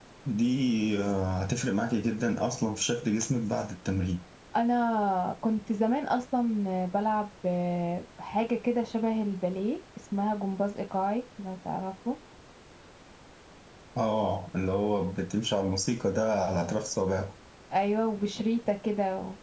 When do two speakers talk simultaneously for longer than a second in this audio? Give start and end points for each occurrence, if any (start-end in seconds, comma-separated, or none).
none